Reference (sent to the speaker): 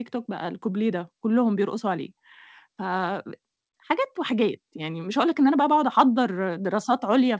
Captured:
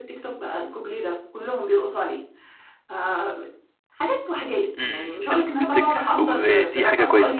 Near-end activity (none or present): present